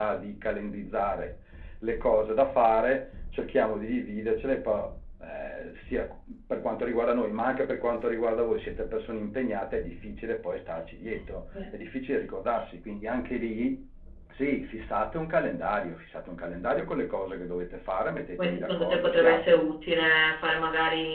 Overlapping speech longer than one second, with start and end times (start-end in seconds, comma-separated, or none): 18.4-19.6